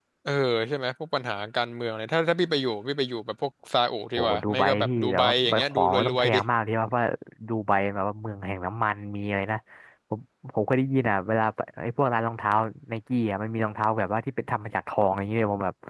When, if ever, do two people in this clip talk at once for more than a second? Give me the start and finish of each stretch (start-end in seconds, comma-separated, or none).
4.2-6.4